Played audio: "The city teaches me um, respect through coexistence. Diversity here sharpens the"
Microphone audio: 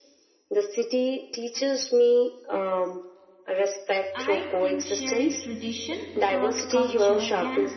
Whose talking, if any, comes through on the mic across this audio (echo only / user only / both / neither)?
both